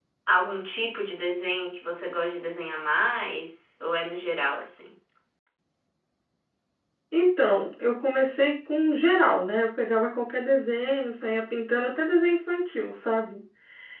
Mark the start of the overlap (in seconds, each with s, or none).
none